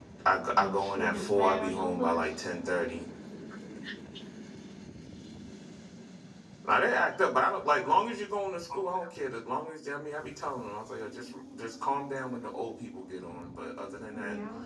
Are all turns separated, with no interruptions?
No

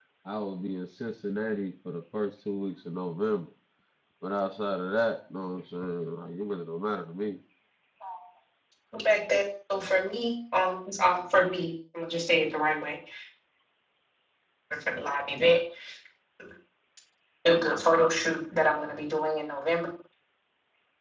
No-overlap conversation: Yes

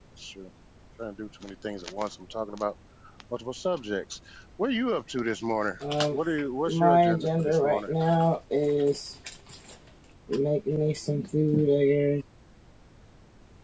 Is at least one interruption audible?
Yes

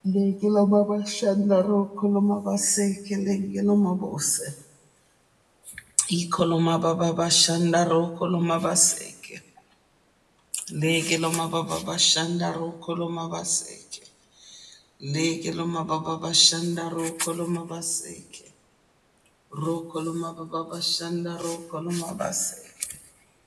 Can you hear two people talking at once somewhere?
No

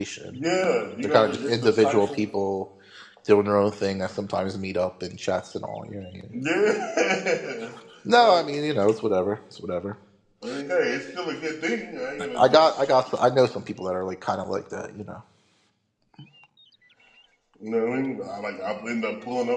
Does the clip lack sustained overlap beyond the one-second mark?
No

